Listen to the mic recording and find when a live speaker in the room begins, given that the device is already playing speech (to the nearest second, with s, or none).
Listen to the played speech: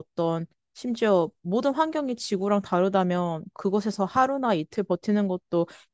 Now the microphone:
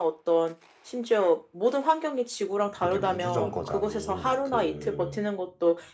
3 s